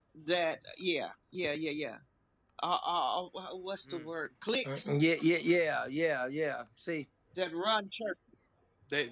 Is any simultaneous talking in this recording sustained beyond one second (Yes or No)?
No